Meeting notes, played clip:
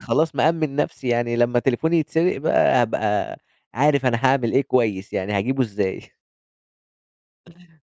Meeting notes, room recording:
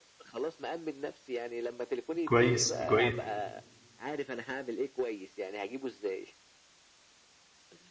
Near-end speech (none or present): present